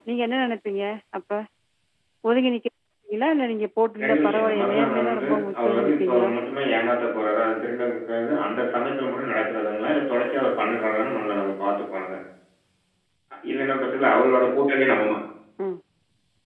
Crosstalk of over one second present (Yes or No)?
Yes